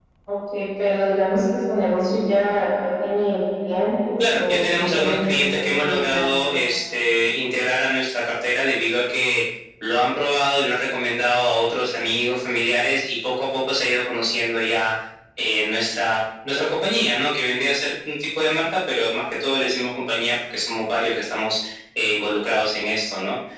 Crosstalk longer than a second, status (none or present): present